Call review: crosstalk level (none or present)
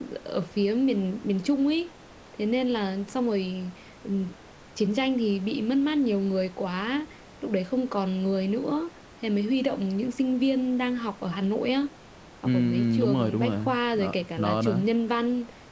present